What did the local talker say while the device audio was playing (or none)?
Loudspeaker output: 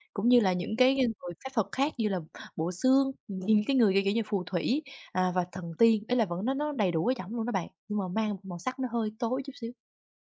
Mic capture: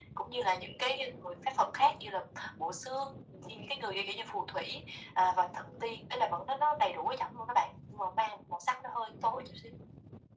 none